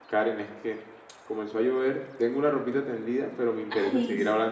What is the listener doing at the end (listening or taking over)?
listening